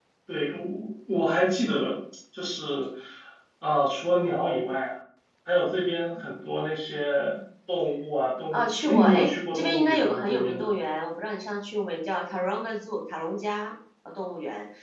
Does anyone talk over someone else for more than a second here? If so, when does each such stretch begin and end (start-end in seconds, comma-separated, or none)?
8.5-10.7